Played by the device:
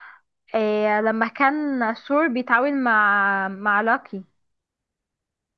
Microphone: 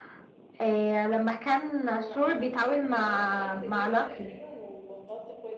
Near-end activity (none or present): present